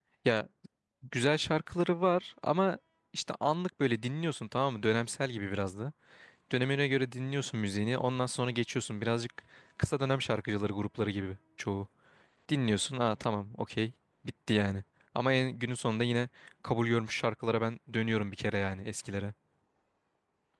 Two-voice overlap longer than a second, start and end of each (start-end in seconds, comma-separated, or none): none